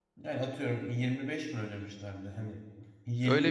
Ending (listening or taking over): taking over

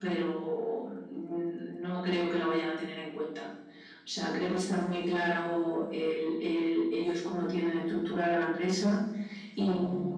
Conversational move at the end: listening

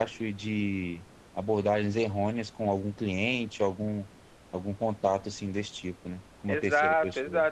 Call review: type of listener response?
taking over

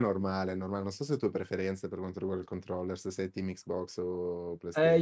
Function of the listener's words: taking over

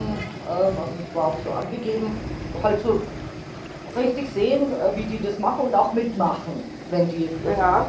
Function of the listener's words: listening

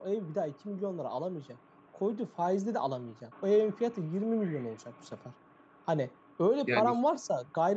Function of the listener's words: listening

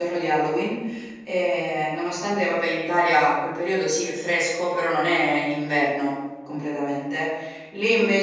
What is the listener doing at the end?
listening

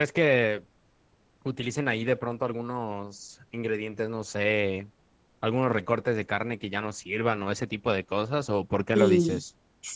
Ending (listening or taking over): taking over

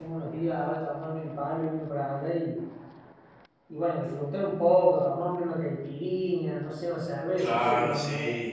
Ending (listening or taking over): taking over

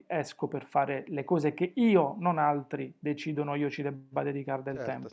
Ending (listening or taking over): taking over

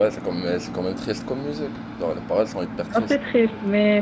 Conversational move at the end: taking over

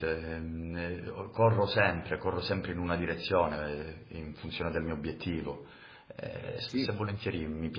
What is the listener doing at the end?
listening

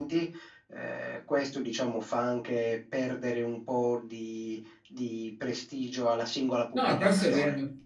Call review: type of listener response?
taking over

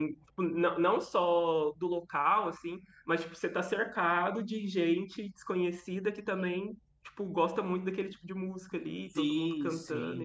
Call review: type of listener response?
taking over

